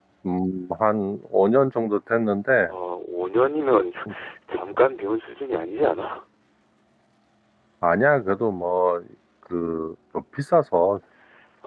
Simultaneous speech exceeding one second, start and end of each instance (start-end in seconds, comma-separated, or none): none